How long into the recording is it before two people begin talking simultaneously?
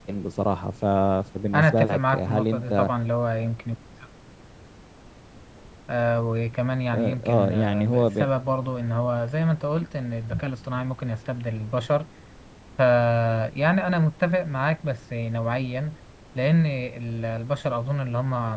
1.5 s

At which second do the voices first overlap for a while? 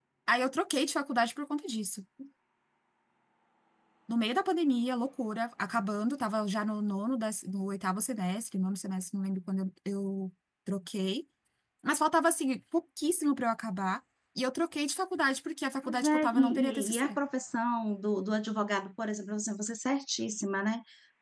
15.8 s

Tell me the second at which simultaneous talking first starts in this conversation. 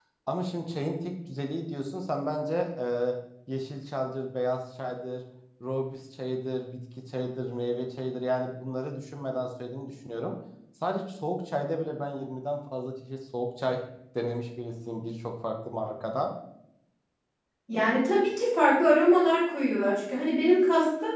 none

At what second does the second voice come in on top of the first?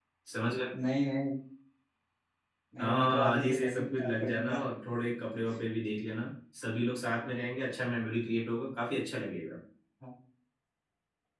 2.8 s

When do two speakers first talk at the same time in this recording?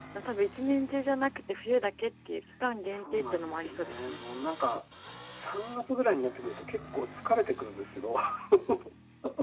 2.9 s

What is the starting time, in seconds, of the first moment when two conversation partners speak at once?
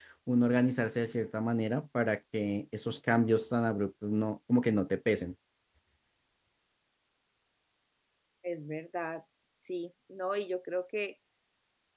none

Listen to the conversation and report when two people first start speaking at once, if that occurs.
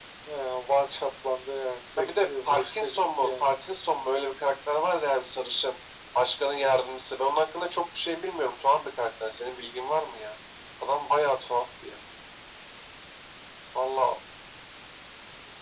2.0 s

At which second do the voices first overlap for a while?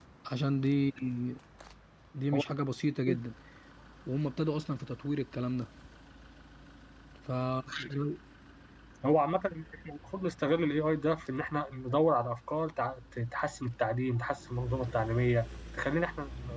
none

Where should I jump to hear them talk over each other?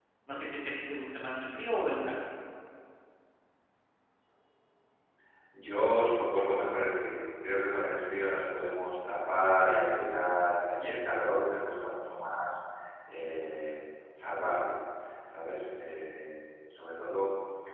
none

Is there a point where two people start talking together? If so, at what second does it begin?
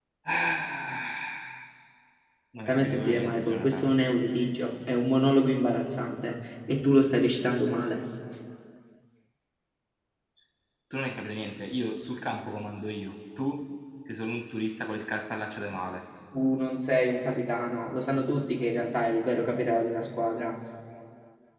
2.7 s

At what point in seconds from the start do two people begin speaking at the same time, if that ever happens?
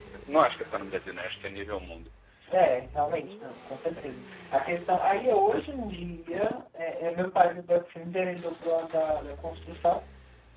none

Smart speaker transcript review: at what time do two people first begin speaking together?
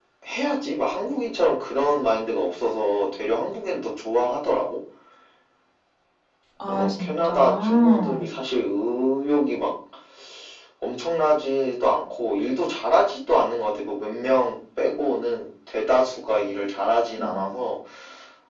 6.7 s

